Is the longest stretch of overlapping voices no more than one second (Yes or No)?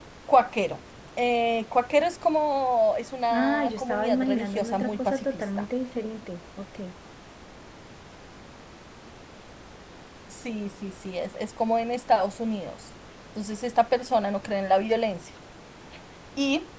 No